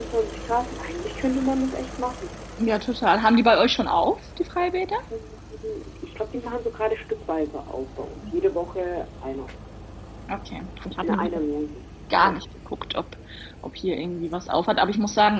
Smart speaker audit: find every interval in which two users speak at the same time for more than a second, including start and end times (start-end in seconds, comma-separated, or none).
none